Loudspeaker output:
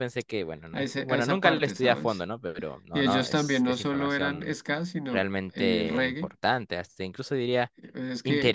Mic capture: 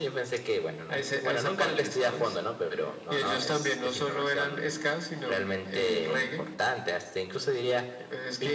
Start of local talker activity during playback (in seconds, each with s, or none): none